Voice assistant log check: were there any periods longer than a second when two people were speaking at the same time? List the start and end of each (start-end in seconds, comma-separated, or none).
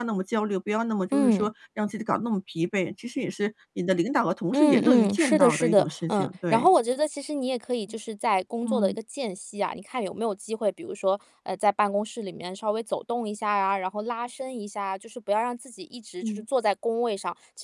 4.5-6.7